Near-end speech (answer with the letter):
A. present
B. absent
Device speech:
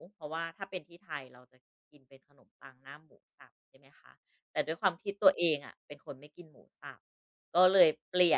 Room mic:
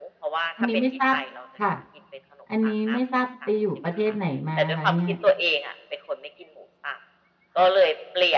A